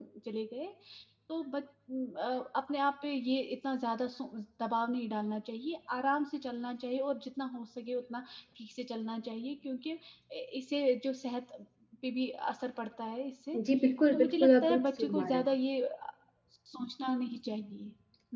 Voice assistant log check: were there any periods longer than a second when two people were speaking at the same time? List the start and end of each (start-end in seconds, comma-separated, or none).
14.1-15.4